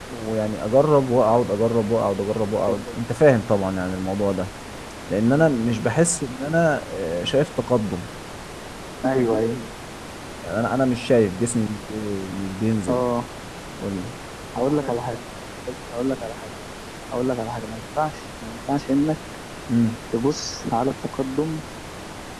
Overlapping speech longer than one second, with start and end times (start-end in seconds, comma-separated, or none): none